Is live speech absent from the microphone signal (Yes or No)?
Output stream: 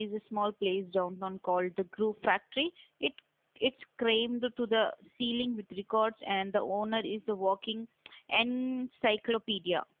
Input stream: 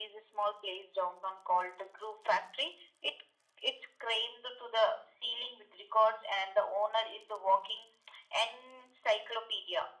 Yes